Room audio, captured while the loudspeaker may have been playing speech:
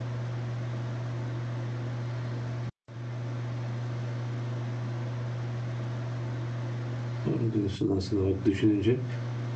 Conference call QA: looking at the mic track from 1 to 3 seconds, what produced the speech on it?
neither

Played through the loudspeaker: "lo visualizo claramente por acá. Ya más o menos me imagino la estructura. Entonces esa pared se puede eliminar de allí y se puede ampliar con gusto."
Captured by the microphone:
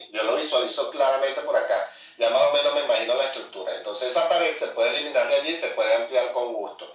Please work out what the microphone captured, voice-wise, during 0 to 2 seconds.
echo only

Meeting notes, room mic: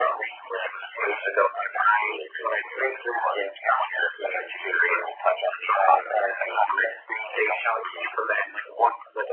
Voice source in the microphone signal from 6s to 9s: echo only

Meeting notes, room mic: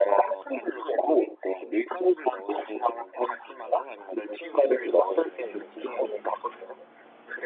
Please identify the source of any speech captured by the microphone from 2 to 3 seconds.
echo only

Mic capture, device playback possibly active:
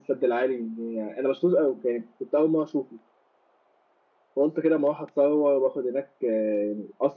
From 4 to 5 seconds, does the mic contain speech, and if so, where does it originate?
echo only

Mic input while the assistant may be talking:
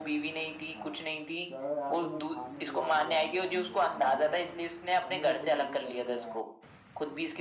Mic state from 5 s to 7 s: both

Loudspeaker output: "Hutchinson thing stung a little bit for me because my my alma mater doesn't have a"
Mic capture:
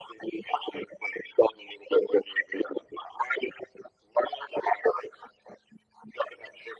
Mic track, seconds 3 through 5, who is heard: echo only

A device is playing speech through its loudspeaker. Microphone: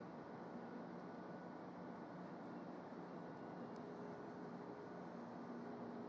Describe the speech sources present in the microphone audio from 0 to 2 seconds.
neither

